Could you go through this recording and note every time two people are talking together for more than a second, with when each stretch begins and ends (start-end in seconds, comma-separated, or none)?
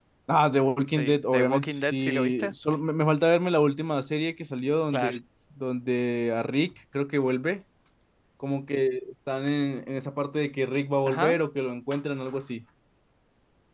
0.9-2.5